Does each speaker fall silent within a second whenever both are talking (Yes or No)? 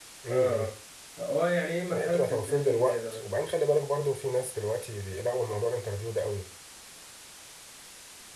No